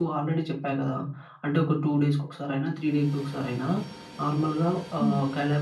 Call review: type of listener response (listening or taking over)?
listening